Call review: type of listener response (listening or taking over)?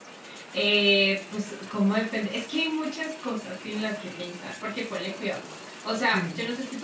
listening